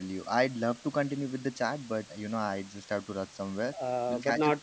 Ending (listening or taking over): taking over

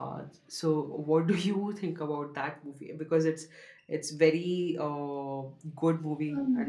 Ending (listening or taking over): taking over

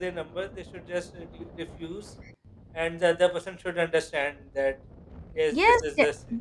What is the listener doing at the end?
taking over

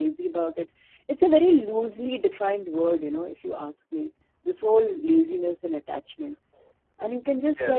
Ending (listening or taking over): listening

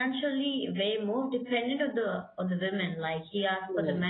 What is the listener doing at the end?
listening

